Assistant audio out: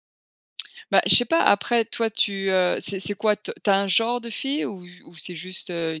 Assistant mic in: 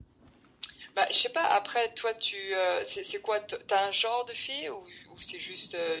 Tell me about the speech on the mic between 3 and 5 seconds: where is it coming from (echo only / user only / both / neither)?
echo only